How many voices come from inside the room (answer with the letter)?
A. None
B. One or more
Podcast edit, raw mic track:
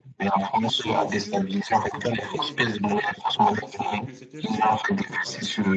B